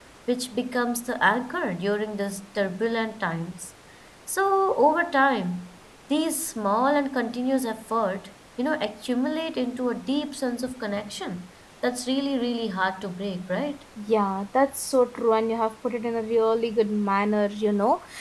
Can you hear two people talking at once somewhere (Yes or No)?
No